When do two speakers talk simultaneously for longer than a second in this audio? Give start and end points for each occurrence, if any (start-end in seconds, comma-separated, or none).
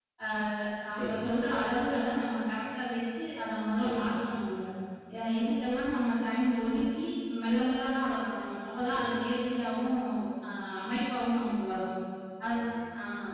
none